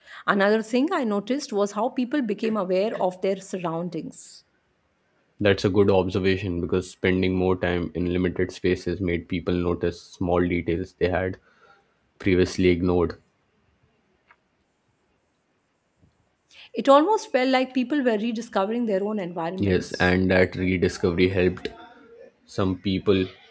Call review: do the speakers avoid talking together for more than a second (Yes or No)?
Yes